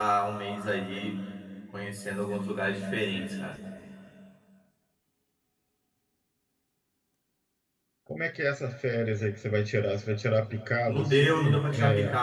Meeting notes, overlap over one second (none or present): present